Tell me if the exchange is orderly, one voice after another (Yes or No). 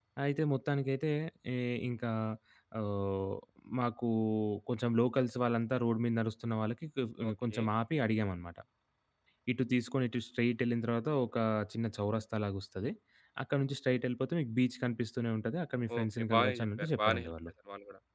No